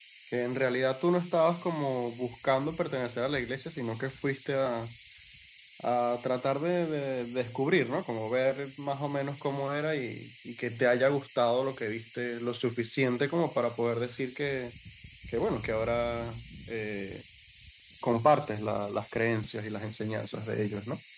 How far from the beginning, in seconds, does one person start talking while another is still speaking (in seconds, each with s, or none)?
none